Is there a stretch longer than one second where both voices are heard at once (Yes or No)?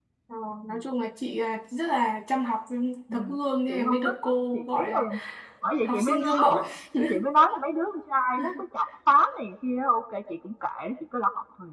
Yes